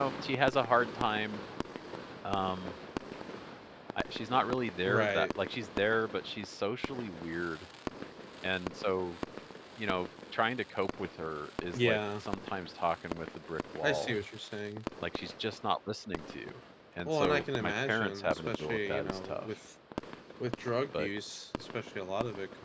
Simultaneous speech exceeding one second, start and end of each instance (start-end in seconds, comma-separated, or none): 17.1-19.5